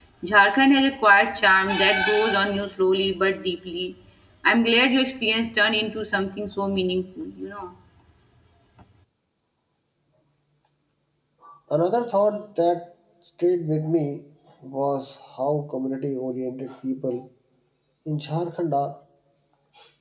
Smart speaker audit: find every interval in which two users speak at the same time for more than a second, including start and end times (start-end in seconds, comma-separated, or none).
none